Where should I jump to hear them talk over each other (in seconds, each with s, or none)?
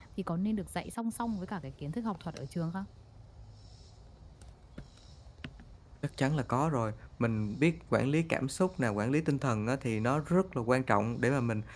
none